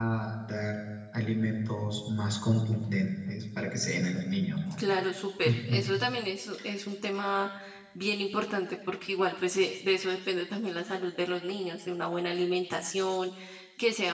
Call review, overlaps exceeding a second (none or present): none